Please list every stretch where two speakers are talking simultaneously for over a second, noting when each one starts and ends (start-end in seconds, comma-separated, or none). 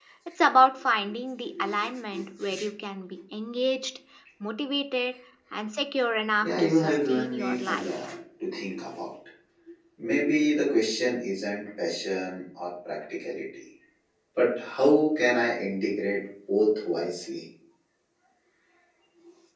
6.4-8.1